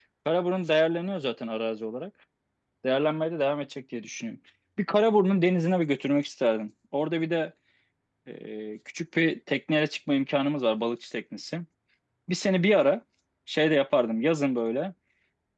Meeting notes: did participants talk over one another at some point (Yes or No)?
No